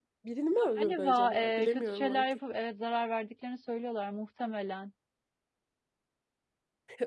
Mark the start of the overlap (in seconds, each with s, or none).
0.6 s